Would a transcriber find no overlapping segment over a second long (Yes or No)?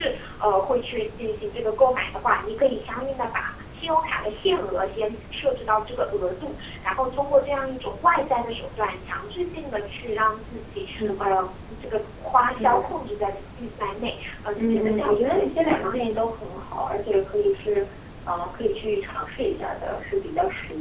No